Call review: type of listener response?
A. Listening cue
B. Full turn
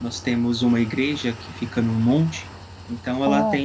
A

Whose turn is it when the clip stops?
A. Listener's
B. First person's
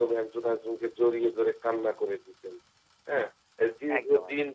B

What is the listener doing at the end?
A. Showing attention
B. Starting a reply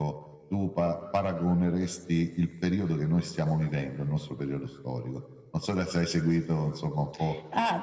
B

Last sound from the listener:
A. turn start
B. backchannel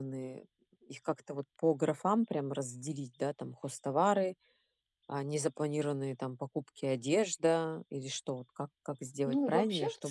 A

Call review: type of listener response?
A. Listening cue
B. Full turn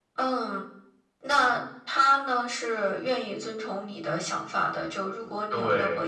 A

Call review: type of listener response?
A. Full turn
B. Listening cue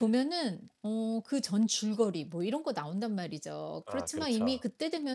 B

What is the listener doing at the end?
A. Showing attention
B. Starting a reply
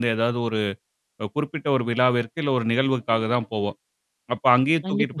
A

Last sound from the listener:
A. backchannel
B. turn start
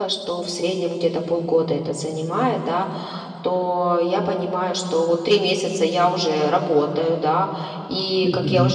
A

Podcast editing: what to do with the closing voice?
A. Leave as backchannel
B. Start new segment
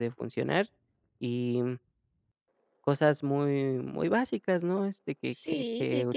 B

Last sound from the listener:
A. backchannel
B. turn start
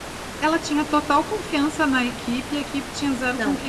B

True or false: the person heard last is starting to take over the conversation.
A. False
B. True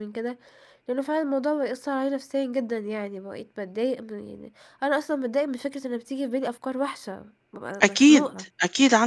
B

